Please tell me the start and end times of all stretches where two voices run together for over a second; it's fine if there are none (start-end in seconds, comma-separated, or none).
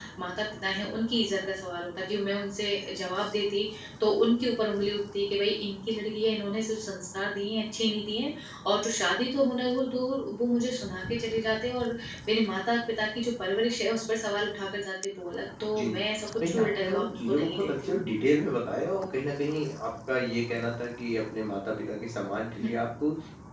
16.5-17.7